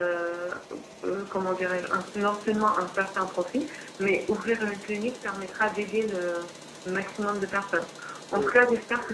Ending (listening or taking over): listening